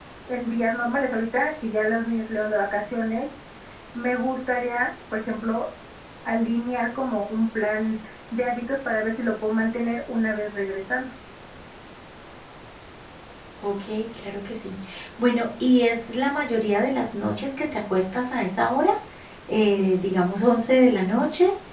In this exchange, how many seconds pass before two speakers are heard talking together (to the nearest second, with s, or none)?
none